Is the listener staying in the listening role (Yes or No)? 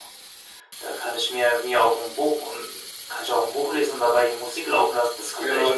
No